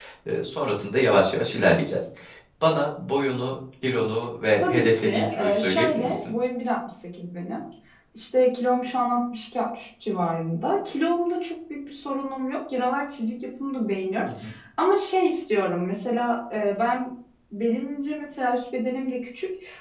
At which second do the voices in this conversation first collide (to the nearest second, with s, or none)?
5 s